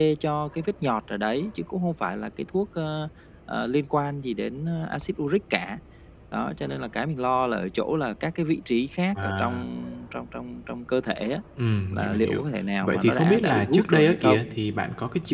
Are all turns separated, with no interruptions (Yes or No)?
No